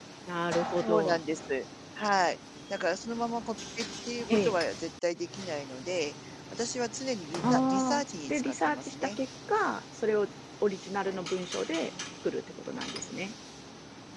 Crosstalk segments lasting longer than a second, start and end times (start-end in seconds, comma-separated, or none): 7.4-9.2